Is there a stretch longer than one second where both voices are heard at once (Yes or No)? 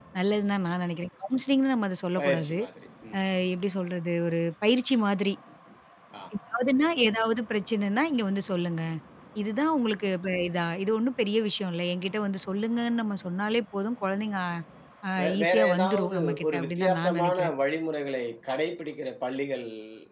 Yes